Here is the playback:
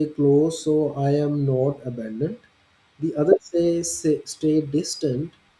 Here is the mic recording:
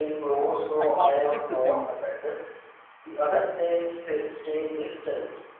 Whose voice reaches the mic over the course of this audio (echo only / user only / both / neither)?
both